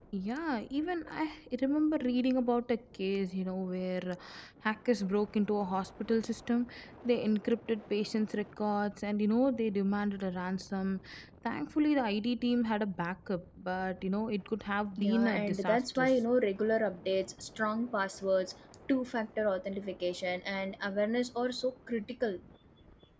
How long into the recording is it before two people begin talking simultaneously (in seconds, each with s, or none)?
15.0 s